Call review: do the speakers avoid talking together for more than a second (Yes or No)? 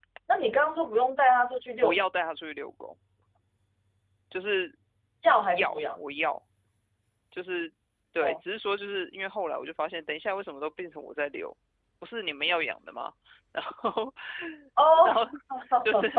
Yes